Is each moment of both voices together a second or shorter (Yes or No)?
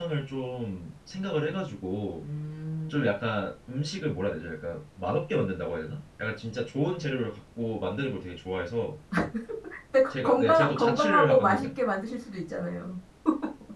No